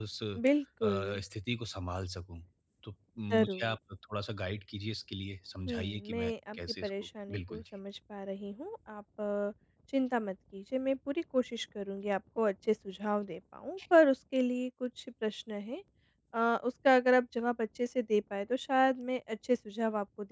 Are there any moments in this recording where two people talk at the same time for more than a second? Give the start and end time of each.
5.7-7.6

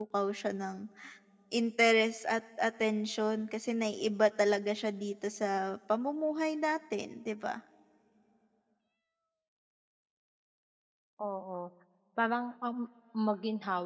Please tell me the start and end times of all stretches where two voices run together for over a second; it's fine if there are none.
none

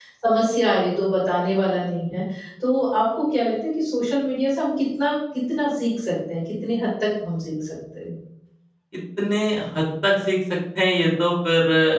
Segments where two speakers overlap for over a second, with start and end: none

